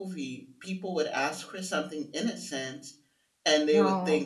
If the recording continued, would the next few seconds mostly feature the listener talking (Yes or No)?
No